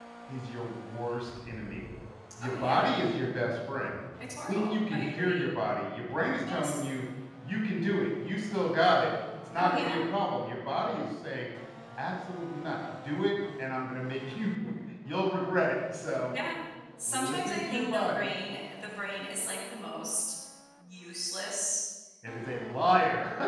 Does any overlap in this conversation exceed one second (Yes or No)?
Yes